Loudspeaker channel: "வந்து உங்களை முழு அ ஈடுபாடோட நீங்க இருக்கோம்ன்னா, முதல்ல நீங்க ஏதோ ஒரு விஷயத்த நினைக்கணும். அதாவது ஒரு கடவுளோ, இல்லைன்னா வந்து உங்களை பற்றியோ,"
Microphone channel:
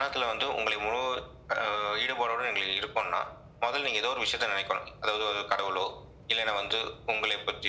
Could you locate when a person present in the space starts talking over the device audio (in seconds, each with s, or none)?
none